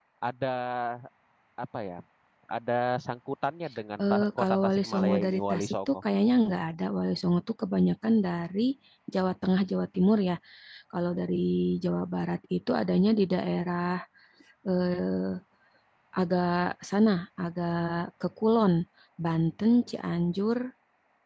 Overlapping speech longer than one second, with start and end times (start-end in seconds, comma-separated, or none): 4.1-6.0